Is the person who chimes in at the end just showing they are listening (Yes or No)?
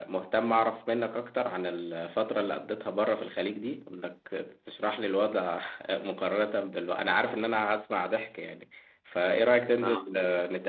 Yes